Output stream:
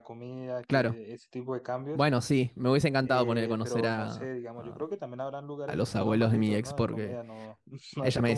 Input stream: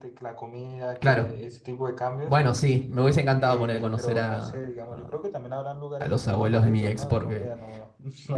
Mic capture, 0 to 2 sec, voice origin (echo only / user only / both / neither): echo only